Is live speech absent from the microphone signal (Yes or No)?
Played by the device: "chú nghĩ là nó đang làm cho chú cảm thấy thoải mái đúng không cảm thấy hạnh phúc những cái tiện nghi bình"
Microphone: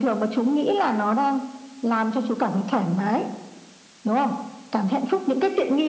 Yes